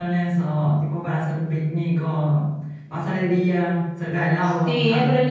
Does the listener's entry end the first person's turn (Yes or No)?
Yes